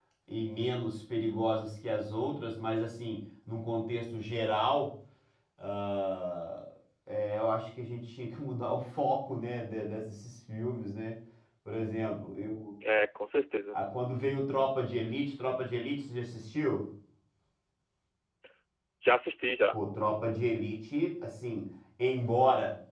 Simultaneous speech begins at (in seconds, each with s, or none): none